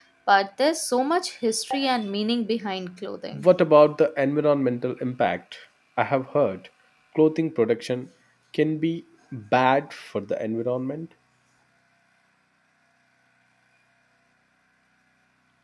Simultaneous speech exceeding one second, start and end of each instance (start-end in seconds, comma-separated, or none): none